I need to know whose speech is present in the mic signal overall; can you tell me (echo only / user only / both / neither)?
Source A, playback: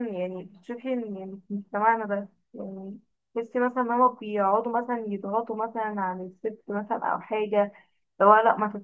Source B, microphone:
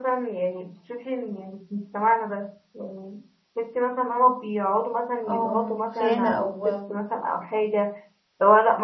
both